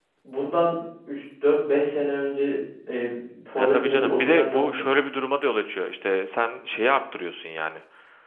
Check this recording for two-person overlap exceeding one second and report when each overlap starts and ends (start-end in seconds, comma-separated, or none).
3.6-4.8